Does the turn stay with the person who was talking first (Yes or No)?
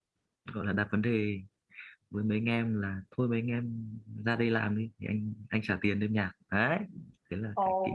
No